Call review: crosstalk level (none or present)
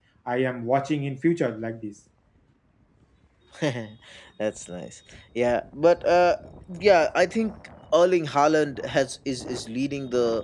none